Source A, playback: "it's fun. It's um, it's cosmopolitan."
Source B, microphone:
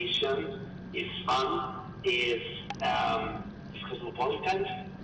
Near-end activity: none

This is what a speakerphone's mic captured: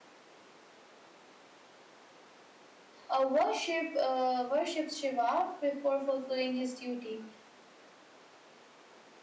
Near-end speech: present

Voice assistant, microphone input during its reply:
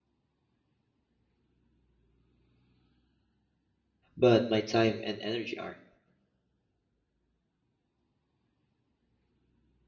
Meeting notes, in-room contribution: present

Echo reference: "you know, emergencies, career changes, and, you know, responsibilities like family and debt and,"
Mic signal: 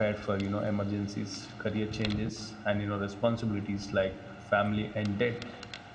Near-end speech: none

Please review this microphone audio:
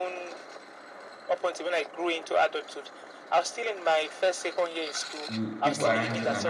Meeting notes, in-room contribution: present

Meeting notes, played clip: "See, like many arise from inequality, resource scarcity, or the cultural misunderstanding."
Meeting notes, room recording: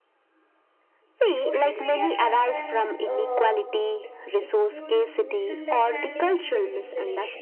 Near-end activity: present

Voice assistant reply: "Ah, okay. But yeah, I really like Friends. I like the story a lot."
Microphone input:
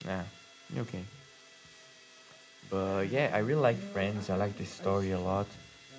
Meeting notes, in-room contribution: present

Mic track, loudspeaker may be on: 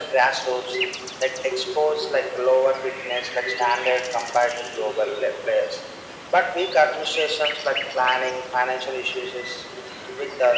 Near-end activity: none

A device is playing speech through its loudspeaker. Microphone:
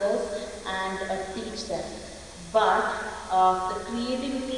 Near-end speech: none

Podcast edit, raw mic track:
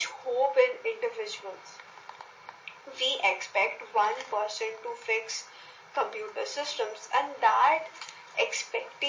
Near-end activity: none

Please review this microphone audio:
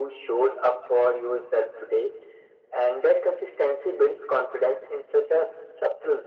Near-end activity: none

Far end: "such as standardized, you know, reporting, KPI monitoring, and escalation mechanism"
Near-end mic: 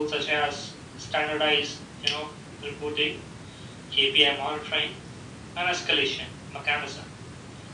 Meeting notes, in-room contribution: none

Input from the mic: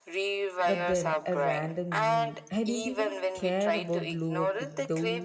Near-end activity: present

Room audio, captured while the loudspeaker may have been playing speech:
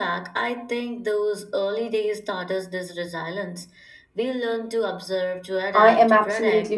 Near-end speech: present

